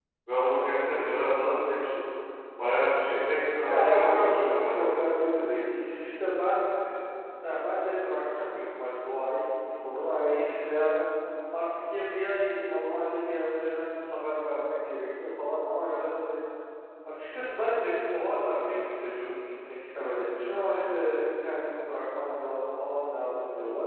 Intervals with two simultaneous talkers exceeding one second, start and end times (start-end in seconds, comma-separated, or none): 3.7-5.0